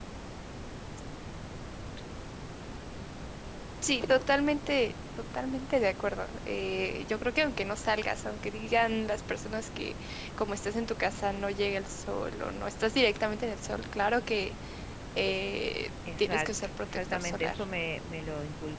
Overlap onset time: 16.1 s

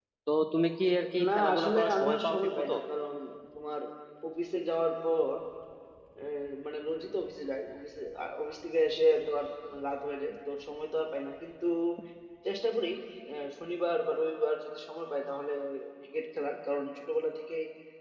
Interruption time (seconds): 1.3 s

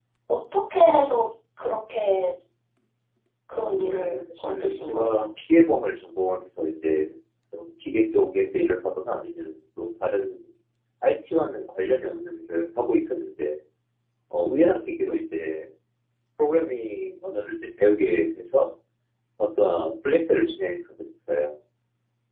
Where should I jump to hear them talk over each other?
3.5 s

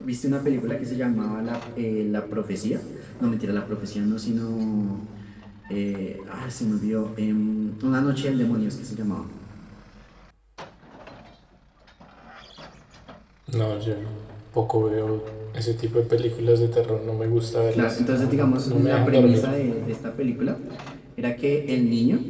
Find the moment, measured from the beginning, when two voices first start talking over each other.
17.7 s

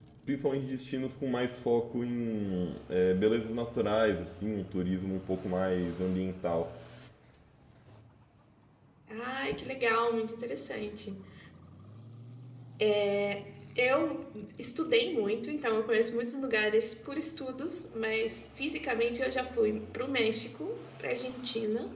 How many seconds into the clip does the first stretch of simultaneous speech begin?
none

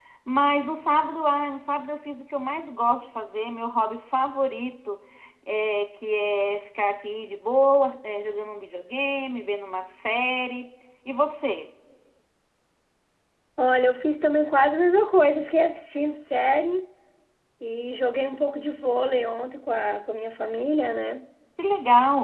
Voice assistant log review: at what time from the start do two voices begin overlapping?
none

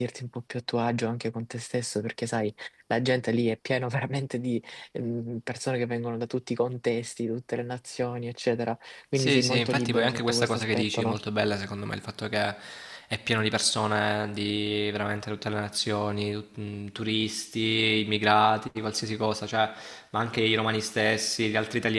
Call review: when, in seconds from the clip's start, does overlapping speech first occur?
9.2 s

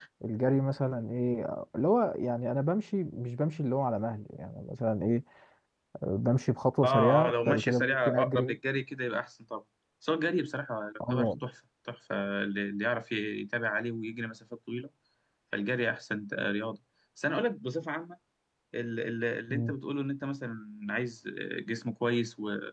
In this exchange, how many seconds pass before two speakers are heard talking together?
6.8 s

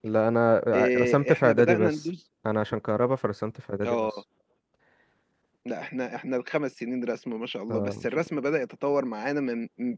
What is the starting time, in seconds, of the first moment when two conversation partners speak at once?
0.7 s

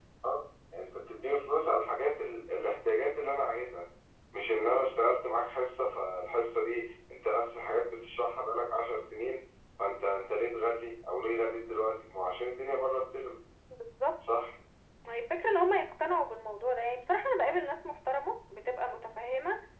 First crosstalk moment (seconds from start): none

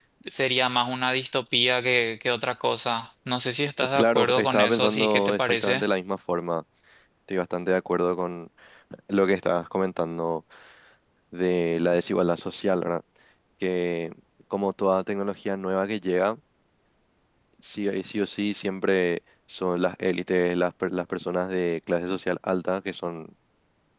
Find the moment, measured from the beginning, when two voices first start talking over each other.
4.0 s

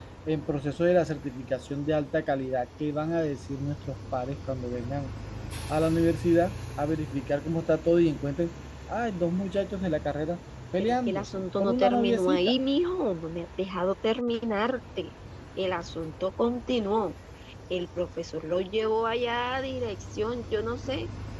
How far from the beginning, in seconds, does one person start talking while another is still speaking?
10.8 s

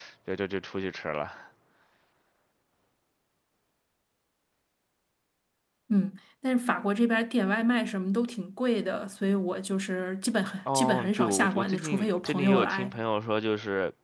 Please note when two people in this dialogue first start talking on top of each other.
10.7 s

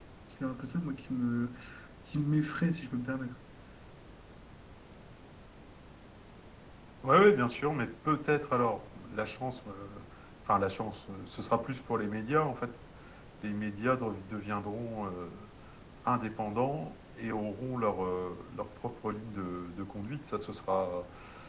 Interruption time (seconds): none

